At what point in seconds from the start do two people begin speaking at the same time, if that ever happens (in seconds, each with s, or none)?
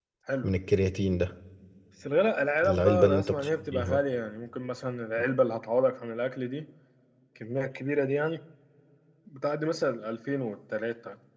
2.6 s